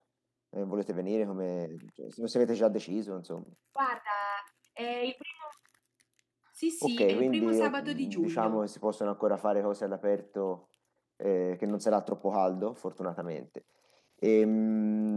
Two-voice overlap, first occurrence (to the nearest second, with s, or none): 7 s